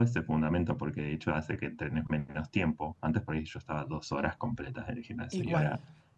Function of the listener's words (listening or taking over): listening